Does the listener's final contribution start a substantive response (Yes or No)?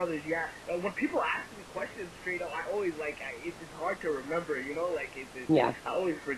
No